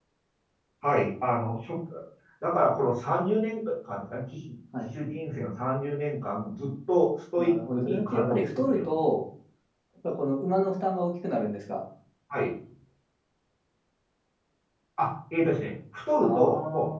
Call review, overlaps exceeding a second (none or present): present